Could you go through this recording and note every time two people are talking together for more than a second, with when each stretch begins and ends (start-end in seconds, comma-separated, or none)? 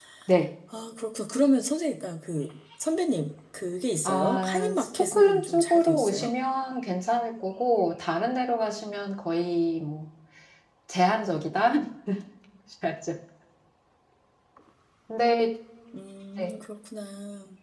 4.0-6.3